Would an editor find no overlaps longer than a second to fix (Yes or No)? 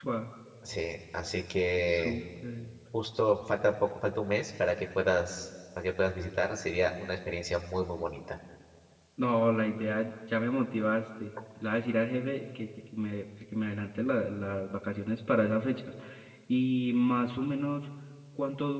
Yes